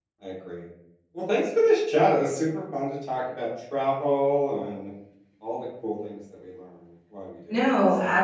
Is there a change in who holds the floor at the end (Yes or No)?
Yes